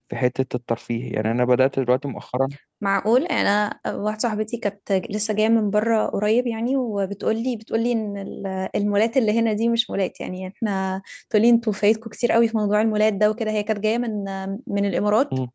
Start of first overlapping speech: none

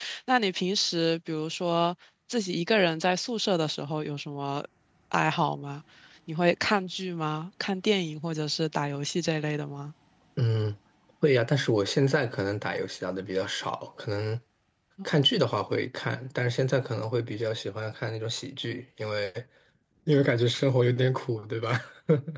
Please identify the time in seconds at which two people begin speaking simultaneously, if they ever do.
none

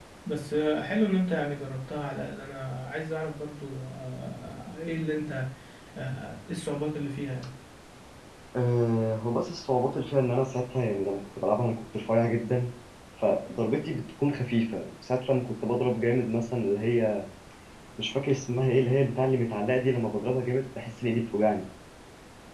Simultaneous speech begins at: none

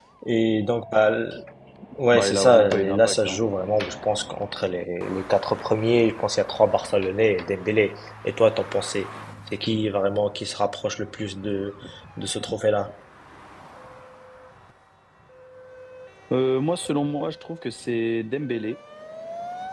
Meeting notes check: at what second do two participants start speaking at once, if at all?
2.1 s

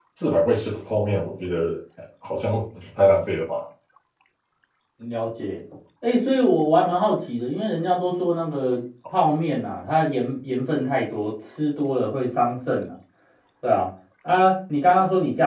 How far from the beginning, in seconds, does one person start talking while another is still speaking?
none

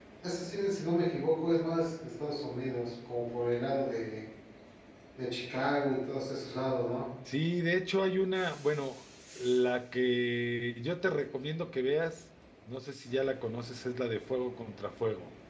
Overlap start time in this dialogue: none

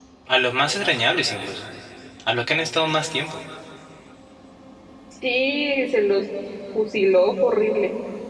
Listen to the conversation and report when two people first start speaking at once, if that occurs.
none

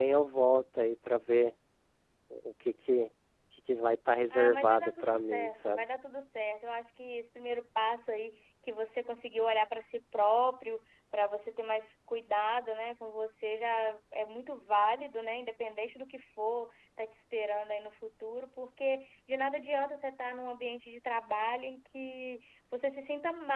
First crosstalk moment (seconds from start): 4.3 s

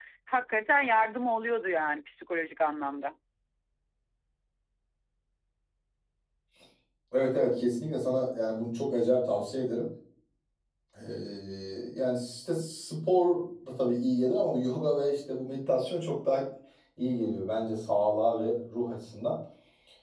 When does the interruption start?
none

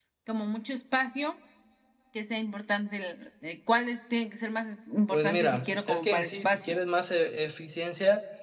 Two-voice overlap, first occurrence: 5.1 s

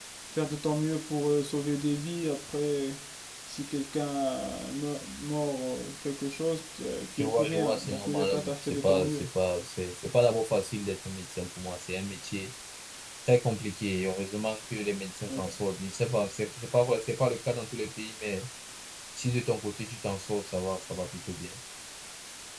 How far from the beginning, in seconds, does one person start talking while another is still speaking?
7.2 s

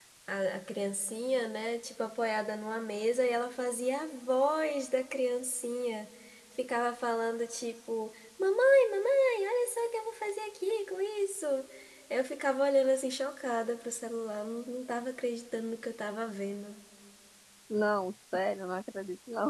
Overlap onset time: none

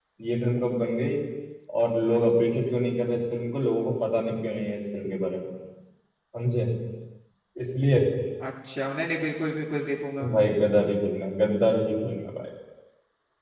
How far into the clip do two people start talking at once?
none

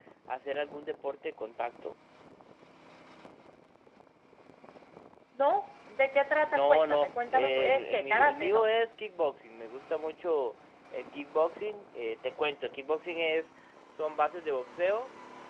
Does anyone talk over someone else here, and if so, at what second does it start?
6.4 s

